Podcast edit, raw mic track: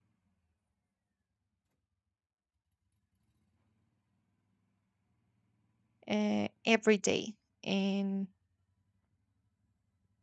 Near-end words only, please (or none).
uh, every day and